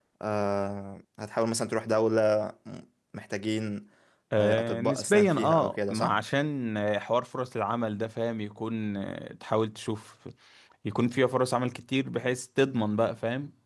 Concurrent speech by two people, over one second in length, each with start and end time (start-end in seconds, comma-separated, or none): 4.4-6.1